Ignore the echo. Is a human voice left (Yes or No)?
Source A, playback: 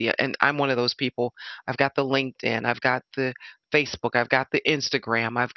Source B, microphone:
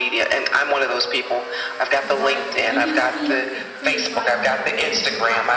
Yes